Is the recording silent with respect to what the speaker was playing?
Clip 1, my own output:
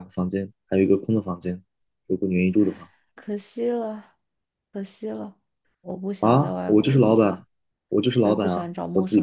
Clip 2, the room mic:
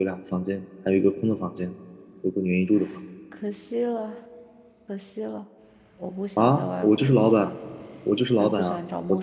No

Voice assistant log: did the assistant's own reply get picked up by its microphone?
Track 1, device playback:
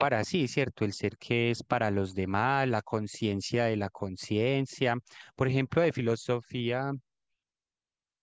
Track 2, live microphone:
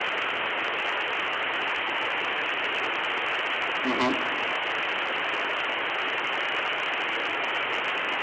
No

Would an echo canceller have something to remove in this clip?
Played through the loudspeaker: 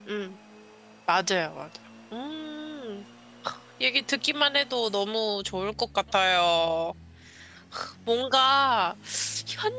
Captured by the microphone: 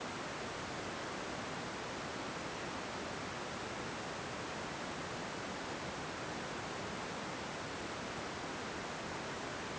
No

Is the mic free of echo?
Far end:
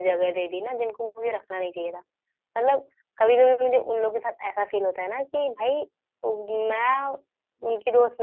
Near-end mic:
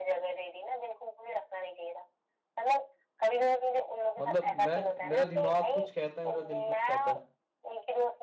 No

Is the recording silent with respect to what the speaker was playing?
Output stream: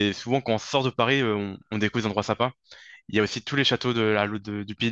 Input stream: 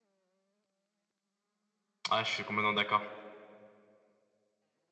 Yes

